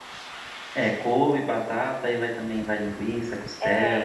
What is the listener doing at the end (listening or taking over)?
taking over